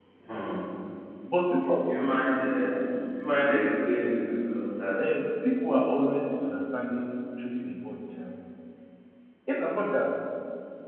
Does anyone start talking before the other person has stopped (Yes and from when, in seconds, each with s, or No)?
No